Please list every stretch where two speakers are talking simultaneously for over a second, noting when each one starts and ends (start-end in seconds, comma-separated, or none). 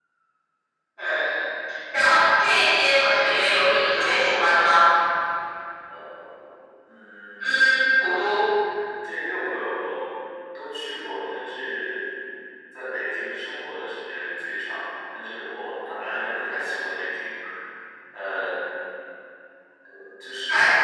3.3-4.5